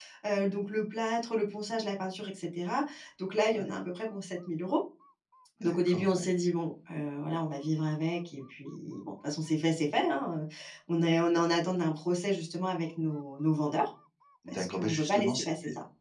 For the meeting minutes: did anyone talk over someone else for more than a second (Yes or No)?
Yes